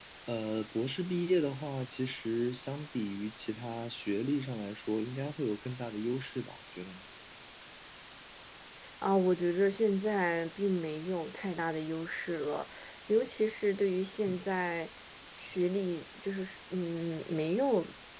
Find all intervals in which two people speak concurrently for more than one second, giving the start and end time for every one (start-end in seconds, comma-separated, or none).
none